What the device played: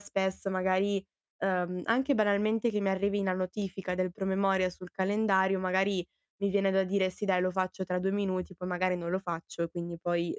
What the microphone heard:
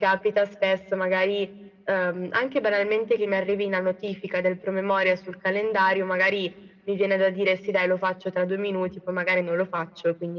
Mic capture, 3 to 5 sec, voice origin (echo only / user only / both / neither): echo only